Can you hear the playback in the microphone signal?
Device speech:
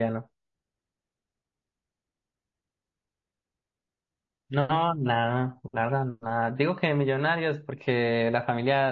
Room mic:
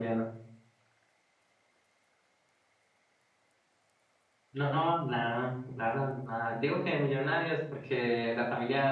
Yes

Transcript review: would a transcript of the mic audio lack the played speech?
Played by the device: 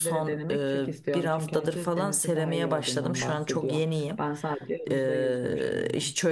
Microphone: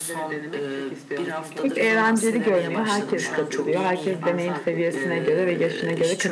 No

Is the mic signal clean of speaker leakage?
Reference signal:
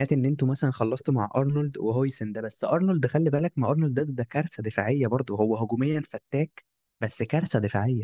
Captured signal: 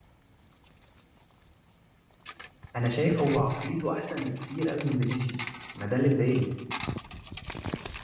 Yes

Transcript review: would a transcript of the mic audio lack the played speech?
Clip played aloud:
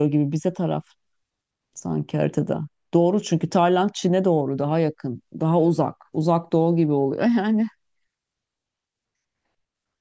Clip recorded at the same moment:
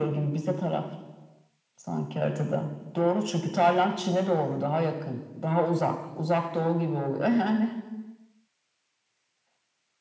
No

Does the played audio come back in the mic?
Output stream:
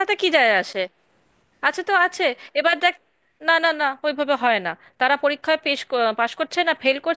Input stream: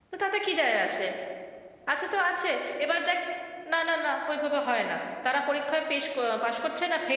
Yes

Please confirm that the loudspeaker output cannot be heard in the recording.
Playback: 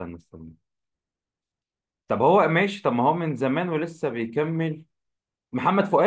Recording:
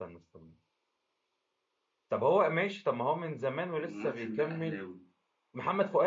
No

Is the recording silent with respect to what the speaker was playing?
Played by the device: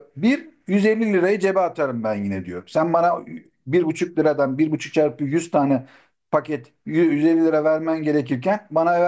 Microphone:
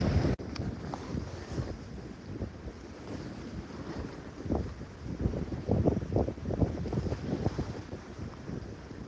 Yes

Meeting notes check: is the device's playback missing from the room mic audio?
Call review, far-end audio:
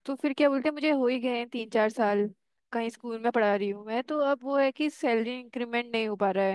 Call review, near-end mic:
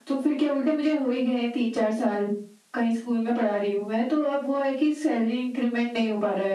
No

